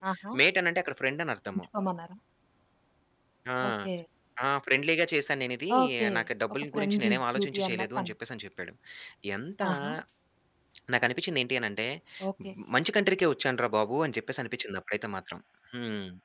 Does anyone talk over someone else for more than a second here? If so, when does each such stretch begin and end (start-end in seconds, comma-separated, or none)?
6.7-8.1